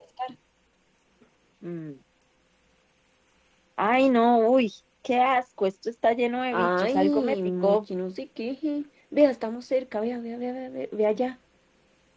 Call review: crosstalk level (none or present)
present